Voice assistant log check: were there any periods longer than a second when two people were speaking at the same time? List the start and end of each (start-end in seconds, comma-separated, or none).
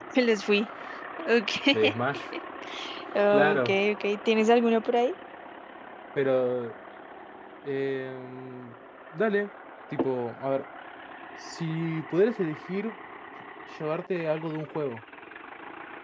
none